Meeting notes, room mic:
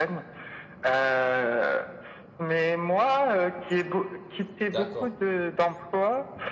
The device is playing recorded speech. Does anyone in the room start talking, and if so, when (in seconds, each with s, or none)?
4.7 s